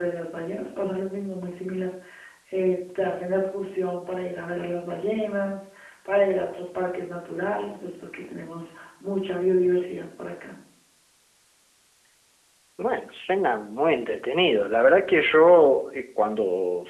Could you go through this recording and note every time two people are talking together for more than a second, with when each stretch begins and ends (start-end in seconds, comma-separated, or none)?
none